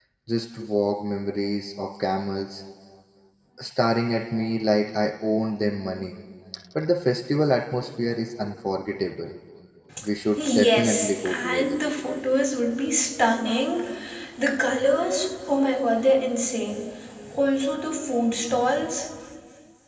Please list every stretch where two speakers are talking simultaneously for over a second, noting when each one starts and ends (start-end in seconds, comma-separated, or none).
10.4-11.8